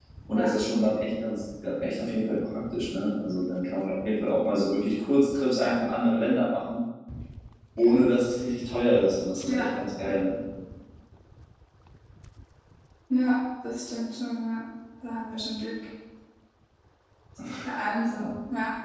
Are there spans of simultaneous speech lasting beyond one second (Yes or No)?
No